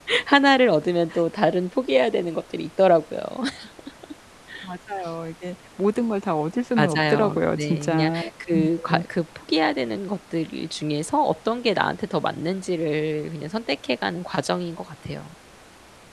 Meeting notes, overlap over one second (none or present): present